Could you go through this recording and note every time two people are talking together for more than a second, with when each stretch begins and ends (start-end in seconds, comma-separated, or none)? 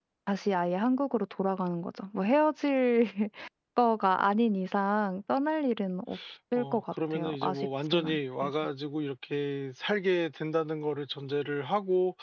6.5-8.5